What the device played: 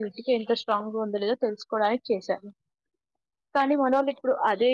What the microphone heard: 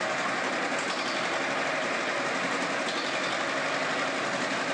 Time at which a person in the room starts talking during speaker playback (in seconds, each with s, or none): none